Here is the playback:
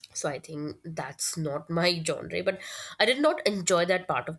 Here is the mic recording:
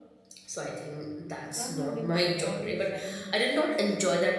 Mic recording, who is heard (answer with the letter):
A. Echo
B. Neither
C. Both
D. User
C